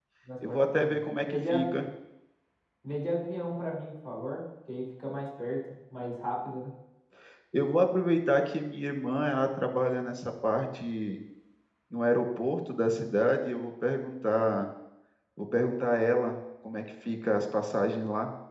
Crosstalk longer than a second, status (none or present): present